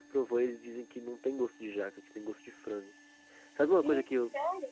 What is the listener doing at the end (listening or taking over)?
taking over